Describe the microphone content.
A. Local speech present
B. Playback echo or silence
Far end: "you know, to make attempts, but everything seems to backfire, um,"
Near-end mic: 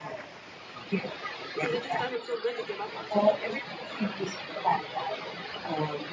A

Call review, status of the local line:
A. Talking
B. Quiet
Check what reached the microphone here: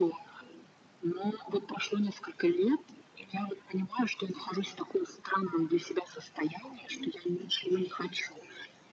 B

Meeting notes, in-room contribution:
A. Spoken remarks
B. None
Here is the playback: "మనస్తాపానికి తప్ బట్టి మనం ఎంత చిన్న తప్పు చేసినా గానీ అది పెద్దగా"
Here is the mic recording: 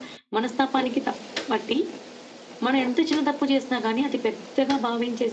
B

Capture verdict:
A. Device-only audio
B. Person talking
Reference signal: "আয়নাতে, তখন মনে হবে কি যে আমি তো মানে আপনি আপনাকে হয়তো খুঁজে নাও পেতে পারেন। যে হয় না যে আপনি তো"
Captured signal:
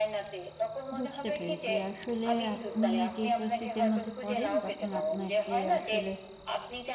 B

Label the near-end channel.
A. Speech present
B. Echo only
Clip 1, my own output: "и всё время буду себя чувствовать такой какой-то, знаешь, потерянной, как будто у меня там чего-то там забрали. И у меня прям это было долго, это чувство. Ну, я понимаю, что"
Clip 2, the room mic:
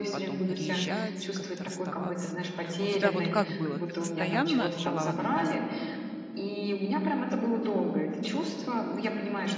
A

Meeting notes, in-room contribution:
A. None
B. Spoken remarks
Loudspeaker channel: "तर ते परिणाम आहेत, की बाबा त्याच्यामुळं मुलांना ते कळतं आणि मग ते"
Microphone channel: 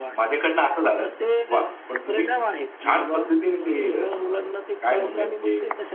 B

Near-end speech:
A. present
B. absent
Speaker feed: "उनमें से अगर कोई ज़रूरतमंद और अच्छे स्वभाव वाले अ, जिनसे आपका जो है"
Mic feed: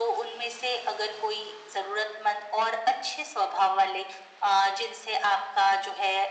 B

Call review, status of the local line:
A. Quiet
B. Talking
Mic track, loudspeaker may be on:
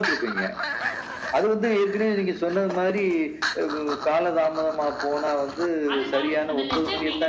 B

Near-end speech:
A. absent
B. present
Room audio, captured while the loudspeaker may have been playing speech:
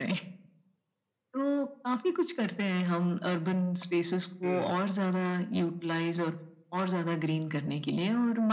B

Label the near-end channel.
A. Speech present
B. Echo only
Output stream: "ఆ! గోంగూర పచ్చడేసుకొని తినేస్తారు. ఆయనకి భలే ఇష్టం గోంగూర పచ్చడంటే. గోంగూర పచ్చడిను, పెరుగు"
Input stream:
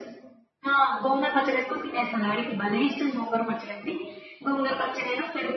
B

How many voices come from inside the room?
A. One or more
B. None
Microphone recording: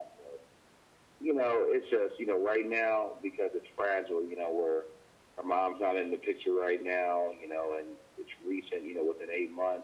B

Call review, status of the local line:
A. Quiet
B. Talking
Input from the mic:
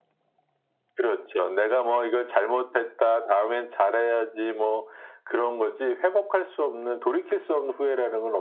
A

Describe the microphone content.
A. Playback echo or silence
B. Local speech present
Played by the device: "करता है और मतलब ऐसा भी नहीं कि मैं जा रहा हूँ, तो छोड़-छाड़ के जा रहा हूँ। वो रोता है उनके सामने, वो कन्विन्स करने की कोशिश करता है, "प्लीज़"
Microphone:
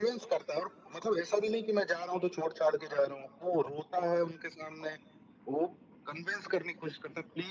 A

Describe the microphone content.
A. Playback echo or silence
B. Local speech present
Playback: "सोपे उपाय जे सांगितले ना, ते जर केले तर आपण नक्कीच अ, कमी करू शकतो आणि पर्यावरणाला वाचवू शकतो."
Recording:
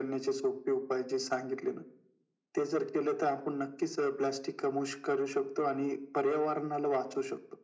A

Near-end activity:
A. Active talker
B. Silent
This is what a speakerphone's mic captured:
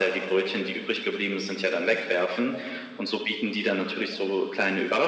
B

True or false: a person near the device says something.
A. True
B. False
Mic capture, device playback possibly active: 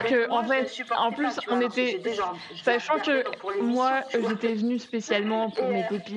A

